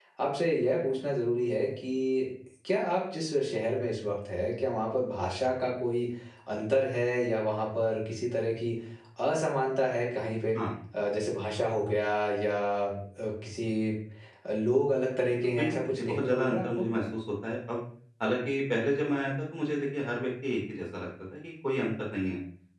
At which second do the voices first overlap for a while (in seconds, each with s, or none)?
15.4 s